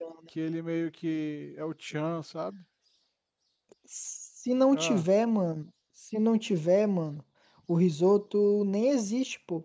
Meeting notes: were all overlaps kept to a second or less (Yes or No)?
Yes